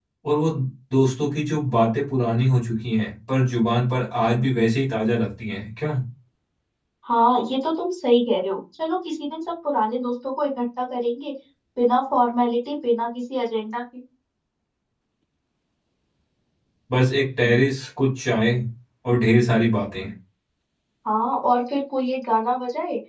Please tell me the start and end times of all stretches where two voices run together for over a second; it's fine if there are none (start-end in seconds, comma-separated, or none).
none